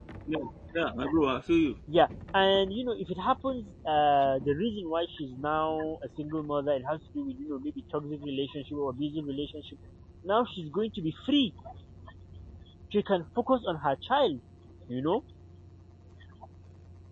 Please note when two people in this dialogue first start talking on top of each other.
none

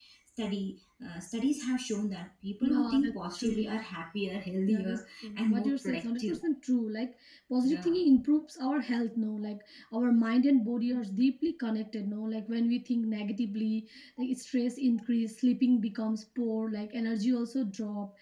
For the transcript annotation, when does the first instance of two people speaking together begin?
2.6 s

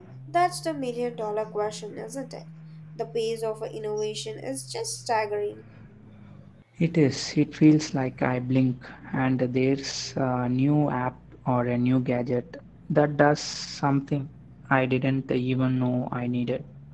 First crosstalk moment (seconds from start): none

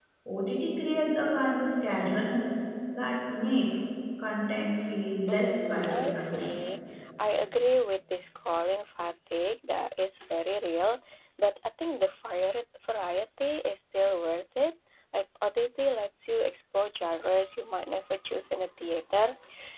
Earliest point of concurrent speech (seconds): 5.3 s

